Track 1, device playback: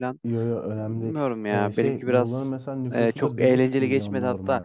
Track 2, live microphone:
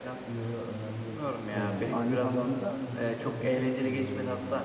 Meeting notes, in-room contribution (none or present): present